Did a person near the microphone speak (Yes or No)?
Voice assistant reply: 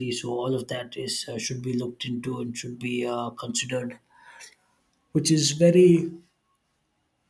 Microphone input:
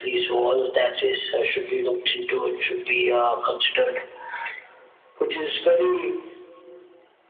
No